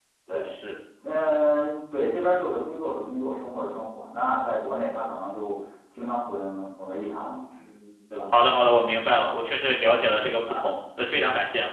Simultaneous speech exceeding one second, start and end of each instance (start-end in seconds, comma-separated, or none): none